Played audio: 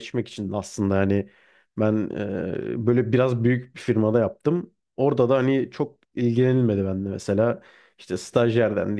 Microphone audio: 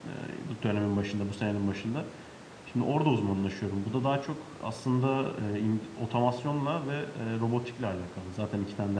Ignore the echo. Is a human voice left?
Yes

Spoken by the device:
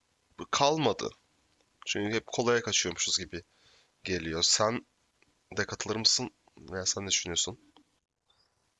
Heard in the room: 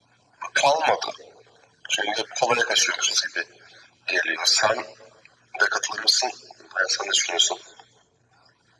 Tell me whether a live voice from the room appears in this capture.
No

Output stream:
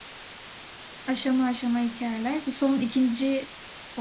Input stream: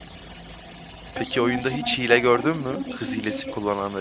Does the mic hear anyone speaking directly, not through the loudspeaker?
Yes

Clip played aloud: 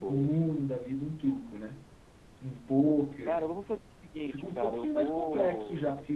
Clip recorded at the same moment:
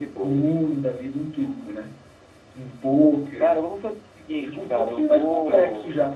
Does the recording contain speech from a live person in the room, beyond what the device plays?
No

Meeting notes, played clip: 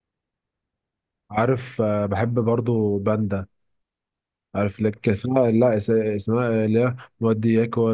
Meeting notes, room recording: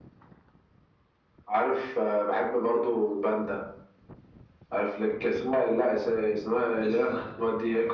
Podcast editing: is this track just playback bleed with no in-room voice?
No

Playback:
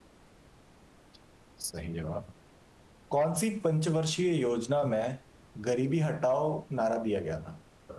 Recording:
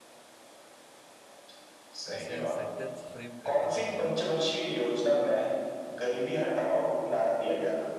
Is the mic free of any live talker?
No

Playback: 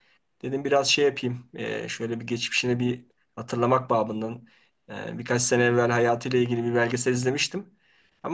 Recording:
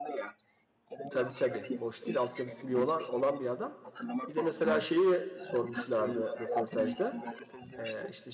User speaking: Yes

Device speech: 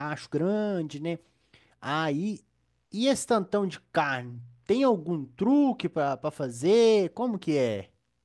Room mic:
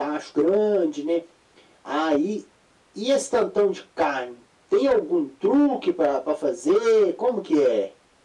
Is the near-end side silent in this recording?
Yes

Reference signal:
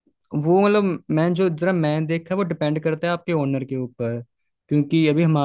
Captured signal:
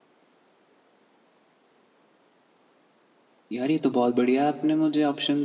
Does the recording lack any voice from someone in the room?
No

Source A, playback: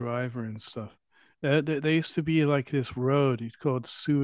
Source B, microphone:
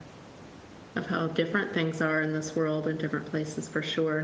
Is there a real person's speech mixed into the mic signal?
Yes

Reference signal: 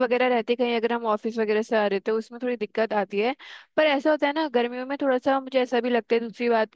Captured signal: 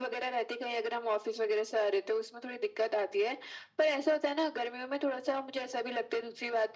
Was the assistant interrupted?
No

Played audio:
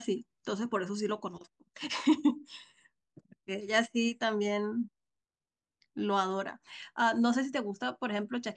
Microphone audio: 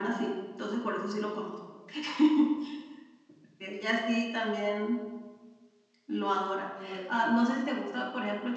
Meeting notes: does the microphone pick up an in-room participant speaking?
Yes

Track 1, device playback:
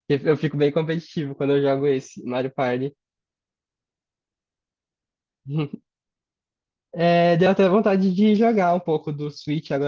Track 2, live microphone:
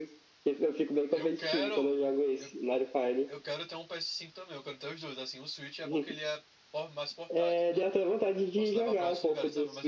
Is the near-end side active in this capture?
Yes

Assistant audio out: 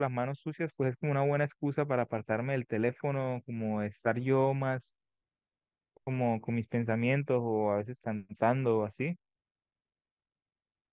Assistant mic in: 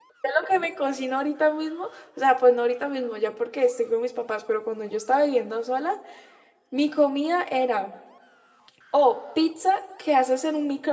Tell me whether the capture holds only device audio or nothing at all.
No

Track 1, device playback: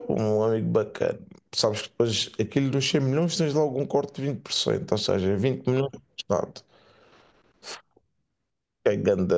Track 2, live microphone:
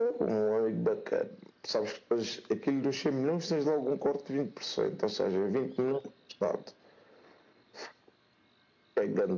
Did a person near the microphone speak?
No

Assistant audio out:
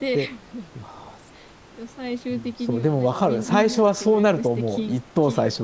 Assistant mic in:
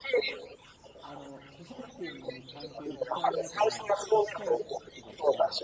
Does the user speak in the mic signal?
Yes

